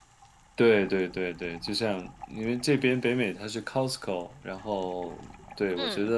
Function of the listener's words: listening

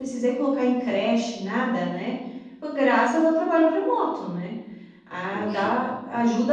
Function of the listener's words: listening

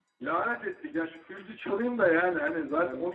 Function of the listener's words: listening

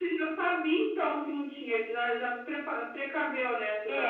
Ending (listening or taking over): taking over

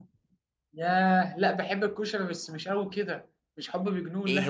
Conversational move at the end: taking over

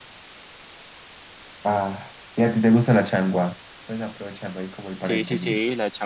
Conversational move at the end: taking over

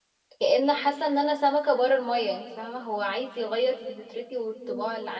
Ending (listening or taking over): taking over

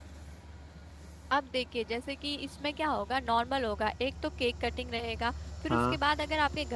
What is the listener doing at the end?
listening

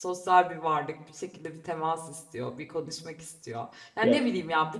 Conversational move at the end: listening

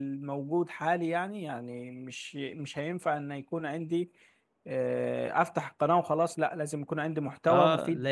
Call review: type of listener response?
taking over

